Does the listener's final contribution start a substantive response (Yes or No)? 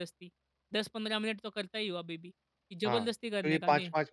Yes